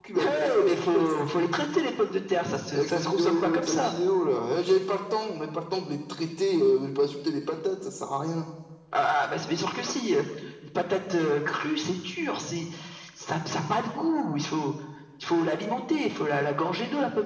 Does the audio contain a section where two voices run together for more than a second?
Yes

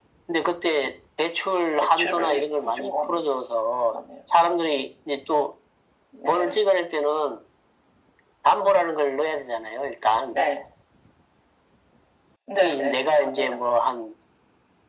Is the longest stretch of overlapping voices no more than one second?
No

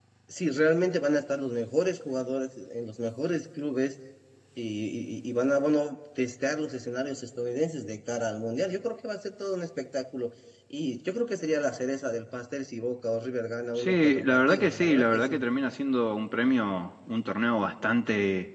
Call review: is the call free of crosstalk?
No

